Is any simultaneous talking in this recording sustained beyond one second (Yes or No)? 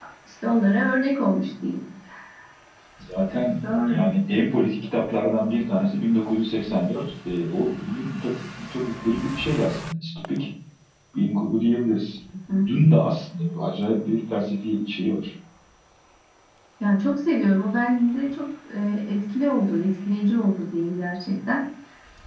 No